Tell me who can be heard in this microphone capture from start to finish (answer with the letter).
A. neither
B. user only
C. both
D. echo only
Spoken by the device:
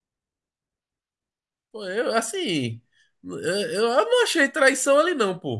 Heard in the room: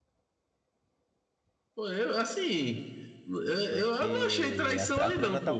C